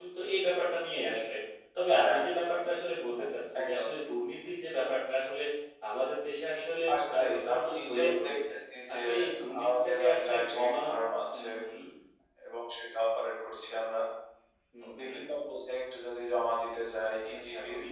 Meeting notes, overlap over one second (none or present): present